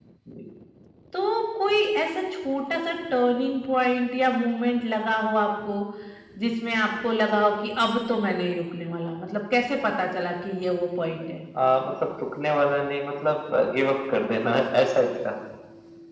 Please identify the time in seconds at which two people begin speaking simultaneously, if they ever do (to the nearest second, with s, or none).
none